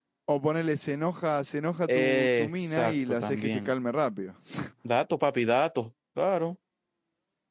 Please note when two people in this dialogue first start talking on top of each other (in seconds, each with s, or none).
1.9 s